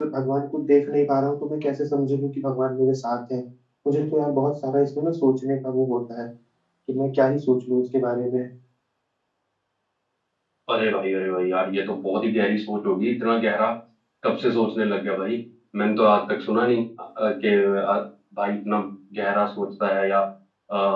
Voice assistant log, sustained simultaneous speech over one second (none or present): none